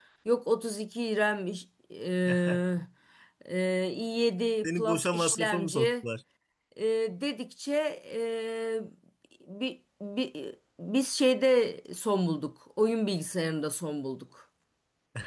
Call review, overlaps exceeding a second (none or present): present